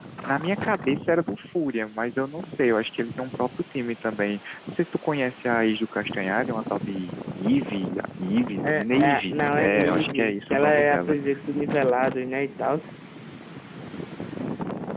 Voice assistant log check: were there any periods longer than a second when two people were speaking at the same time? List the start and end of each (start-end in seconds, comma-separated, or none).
8.6-11.2